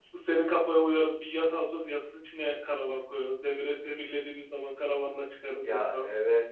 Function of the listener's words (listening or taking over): taking over